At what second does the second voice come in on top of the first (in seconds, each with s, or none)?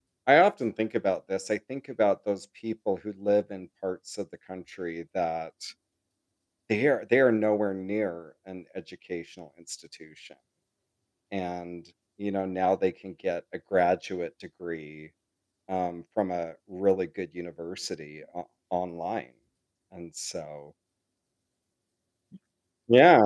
none